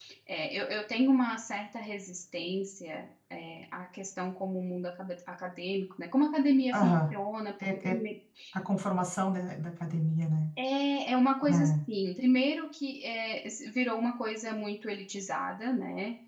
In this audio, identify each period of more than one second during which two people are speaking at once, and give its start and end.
none

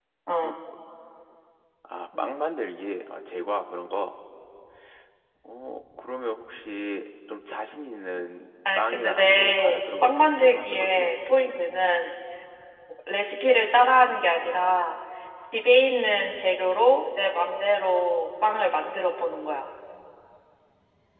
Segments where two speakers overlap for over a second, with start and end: 8.8-11.1

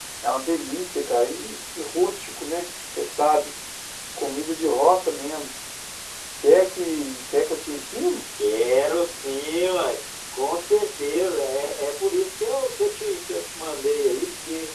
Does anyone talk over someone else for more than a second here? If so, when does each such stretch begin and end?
none

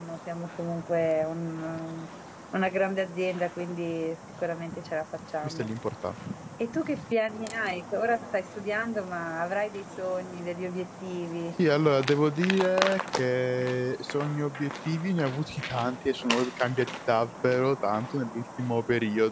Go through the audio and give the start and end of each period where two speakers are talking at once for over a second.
none

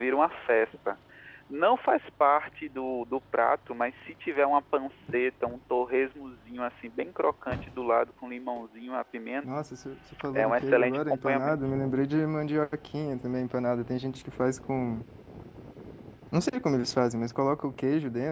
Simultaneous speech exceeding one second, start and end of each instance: 10.3-11.6

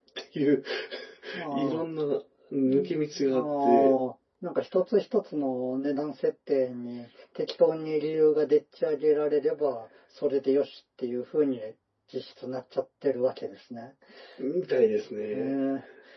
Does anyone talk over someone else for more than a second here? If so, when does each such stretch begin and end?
2.7-3.9

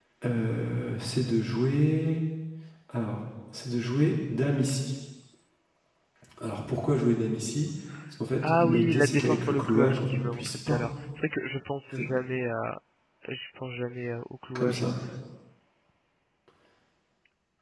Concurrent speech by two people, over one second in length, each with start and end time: 8.6-10.8

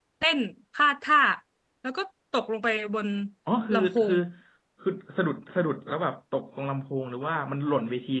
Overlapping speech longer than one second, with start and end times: none

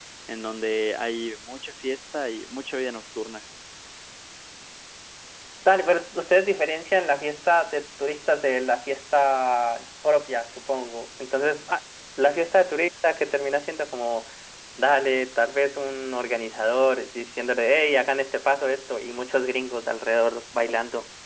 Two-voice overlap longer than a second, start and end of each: none

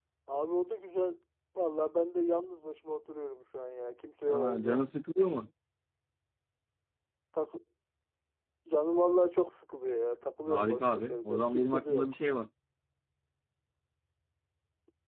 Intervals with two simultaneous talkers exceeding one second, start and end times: 10.5-12.0

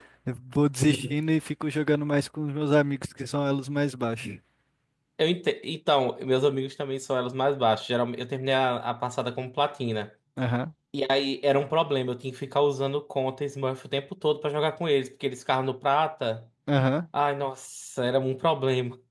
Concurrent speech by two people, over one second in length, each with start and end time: none

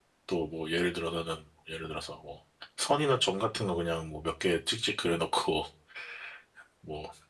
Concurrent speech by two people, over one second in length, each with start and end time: none

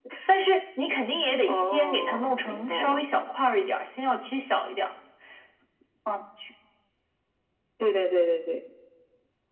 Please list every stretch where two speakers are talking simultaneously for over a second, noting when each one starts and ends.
1.5-3.0

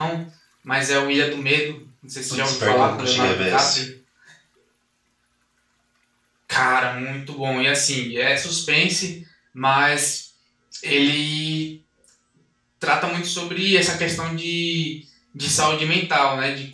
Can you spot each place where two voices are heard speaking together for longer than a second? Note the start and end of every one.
2.4-3.8

